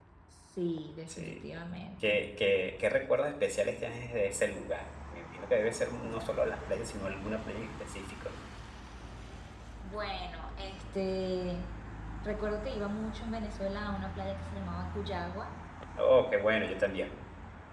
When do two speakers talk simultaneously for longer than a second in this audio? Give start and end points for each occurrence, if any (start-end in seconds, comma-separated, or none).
none